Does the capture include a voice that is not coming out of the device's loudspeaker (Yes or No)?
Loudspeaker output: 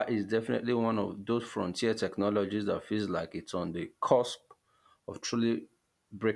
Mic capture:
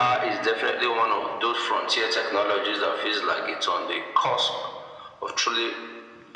No